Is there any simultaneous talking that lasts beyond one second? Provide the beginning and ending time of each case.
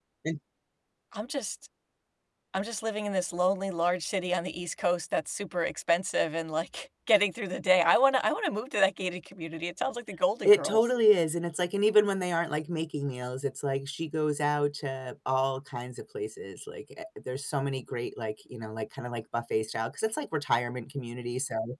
none

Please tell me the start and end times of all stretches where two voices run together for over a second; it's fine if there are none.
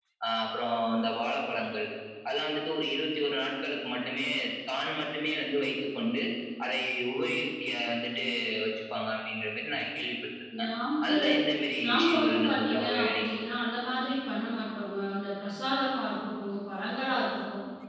11.8-13.4

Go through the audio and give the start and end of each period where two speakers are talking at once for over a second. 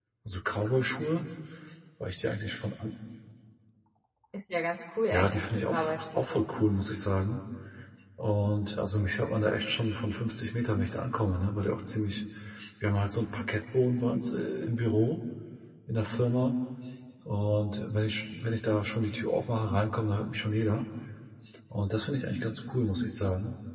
5.1-6.4

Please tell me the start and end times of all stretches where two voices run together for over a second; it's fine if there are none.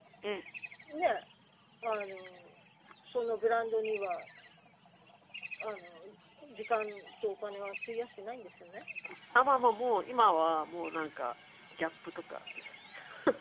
none

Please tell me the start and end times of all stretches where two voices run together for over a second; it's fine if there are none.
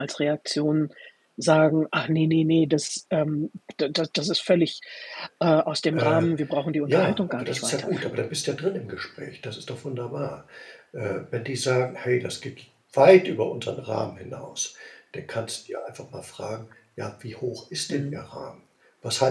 6.8-8.2

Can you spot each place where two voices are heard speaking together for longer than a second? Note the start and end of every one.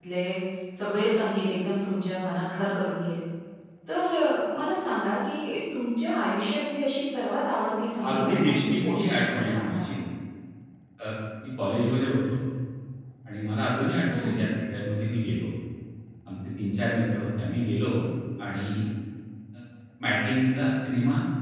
8.1-10.0

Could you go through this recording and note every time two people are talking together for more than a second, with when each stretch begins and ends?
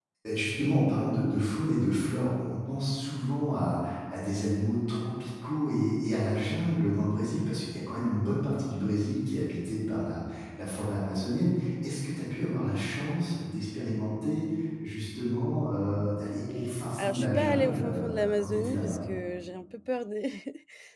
17.0-19.0

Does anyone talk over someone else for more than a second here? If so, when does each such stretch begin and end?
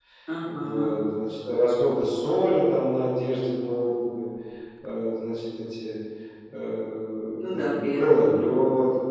7.4-8.6

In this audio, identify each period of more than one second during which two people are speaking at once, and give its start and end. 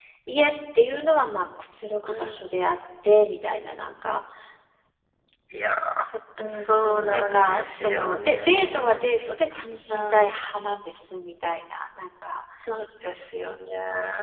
6.4-9.0

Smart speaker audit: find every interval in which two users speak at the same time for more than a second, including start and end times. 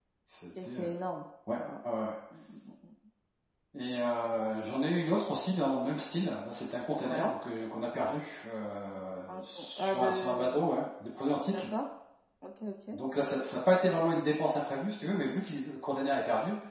9.3-10.7

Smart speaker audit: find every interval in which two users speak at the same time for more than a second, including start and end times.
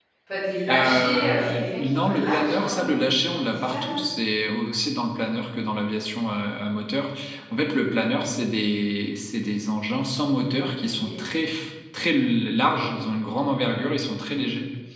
0.7-3.0

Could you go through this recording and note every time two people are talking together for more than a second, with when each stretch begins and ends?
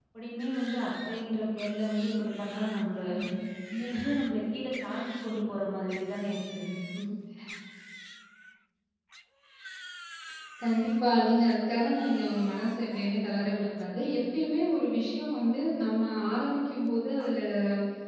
none

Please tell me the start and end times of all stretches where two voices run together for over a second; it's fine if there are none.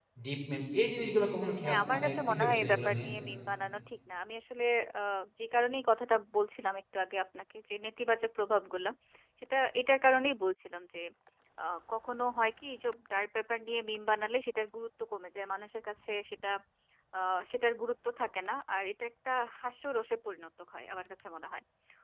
1.6-3.1

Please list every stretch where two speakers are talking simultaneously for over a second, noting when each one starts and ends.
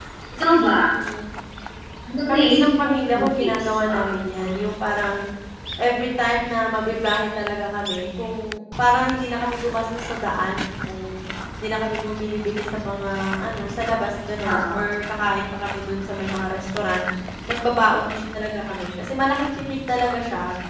2.3-4.2

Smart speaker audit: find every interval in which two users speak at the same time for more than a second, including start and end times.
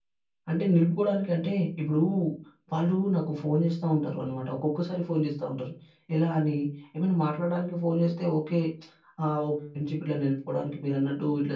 none

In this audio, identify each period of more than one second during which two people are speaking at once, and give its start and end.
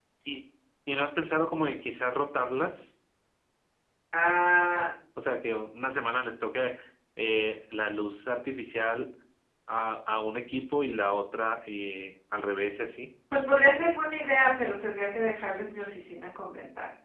none

